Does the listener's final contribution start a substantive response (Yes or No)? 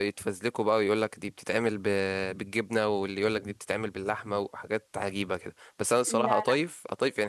No